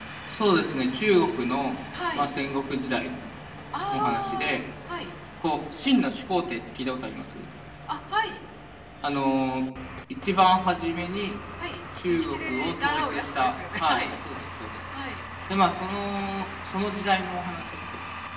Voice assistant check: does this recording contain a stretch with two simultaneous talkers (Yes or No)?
Yes